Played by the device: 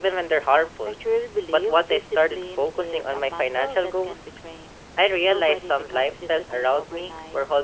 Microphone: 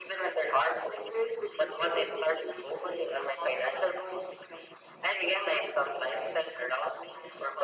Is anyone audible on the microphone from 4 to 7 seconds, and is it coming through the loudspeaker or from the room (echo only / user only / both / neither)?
echo only